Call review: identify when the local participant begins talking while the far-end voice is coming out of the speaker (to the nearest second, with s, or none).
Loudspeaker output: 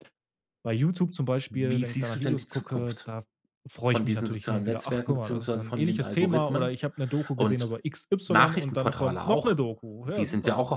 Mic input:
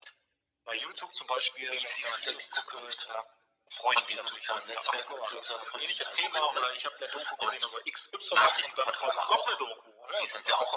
none